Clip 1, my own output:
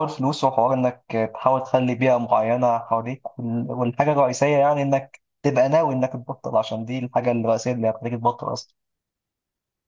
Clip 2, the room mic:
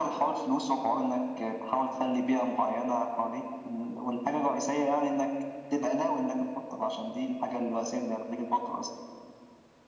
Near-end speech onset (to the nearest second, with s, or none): none